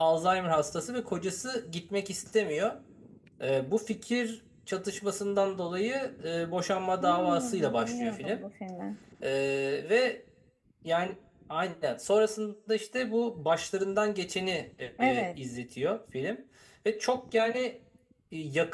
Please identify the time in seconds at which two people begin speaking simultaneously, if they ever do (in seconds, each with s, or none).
7.0 s